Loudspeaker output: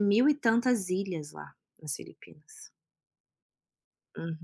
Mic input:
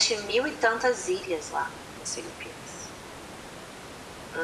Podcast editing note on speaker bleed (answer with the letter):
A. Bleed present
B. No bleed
A